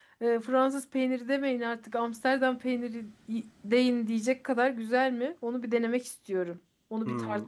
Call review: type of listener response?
taking over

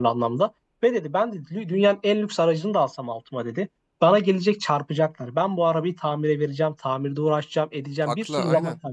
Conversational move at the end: listening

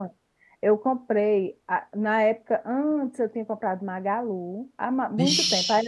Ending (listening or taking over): listening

